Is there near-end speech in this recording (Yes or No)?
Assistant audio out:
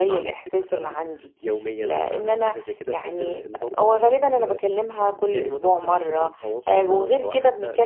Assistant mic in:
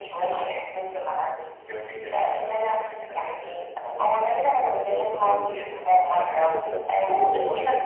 Yes